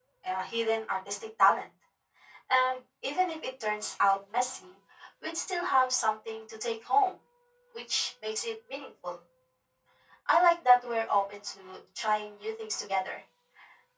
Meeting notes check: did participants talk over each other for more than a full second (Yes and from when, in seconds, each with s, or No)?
No